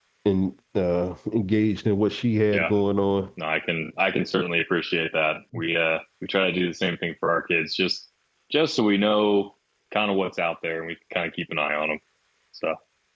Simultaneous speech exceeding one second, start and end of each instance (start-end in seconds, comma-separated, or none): none